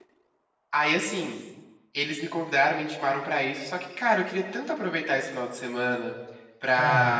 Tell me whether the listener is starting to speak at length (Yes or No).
No